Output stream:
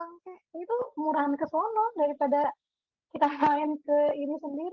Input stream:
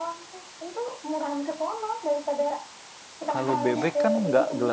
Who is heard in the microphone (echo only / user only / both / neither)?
both